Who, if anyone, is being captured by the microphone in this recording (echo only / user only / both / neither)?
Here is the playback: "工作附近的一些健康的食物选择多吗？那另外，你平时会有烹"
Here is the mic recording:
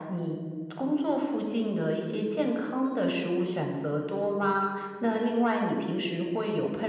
echo only